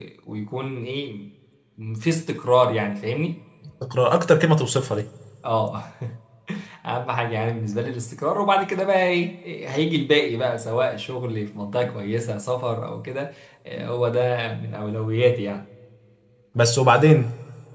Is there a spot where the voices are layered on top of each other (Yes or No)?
No